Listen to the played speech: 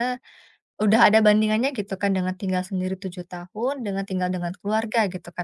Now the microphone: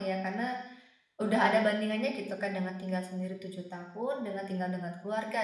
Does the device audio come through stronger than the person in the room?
Yes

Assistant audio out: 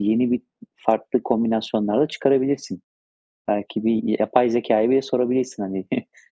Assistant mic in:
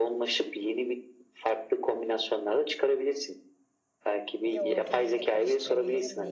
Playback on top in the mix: Yes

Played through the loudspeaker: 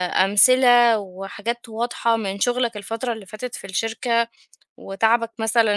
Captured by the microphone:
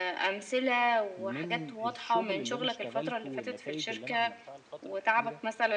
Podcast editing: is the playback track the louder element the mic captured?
Yes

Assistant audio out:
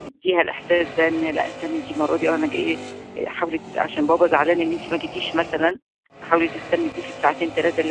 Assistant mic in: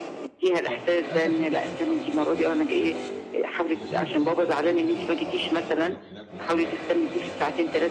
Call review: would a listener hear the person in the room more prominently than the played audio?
No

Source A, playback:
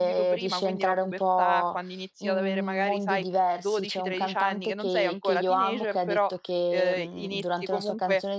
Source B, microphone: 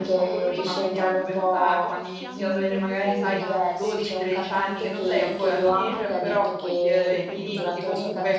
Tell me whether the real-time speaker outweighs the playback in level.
No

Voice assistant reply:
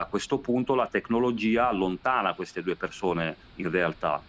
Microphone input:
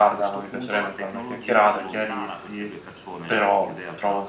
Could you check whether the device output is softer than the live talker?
Yes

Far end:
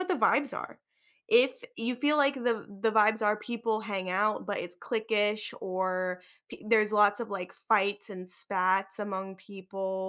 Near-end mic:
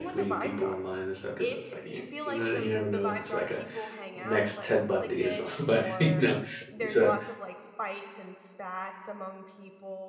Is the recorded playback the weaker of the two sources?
Yes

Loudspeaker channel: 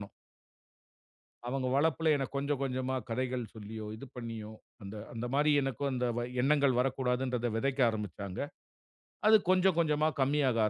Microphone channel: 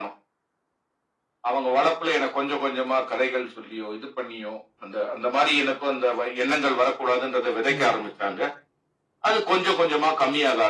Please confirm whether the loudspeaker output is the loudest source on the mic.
Yes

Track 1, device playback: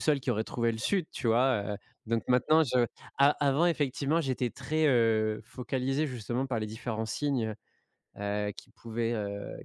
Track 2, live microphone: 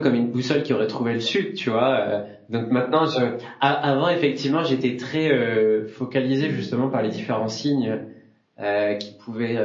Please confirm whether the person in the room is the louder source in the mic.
No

